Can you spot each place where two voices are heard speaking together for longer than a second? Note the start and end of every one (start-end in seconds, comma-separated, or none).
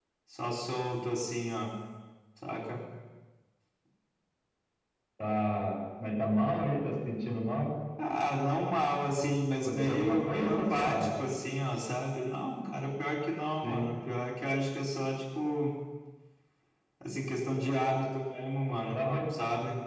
9.6-11.1